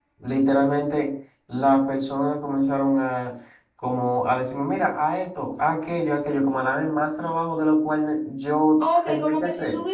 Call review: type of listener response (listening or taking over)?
taking over